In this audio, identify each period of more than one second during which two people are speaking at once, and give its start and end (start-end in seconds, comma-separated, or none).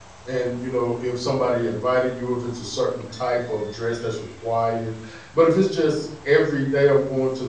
none